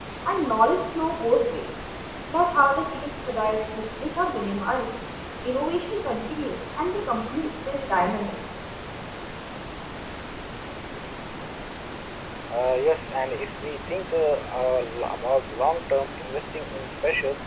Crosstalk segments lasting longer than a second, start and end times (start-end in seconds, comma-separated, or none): none